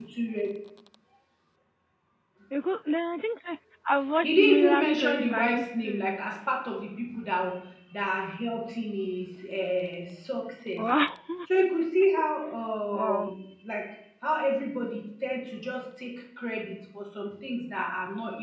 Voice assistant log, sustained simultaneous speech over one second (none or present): present